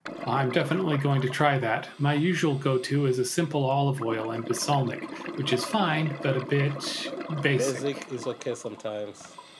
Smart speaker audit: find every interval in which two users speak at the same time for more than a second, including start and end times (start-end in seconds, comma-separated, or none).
none